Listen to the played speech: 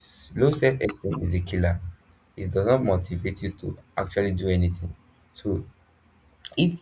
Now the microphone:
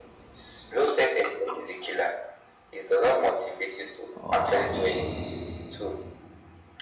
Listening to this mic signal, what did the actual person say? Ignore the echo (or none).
or how big it is.